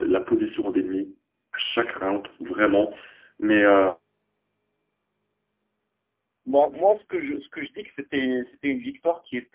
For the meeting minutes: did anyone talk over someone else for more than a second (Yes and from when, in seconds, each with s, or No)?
No